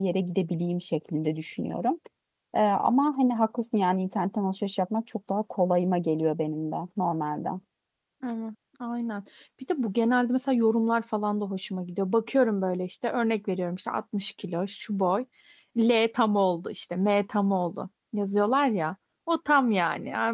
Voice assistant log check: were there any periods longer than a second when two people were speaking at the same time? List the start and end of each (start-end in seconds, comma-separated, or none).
none